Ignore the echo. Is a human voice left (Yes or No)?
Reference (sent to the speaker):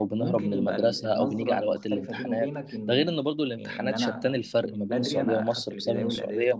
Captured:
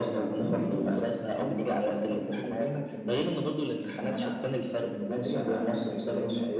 No